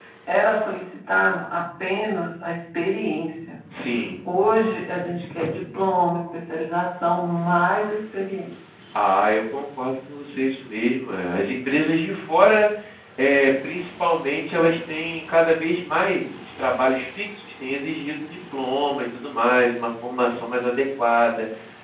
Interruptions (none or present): none